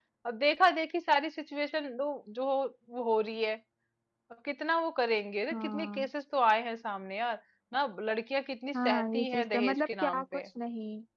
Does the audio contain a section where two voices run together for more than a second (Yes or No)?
Yes